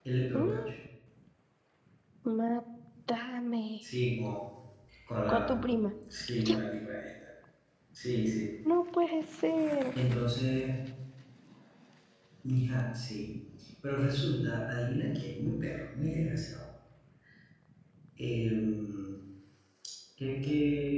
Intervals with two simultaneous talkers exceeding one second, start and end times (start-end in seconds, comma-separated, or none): none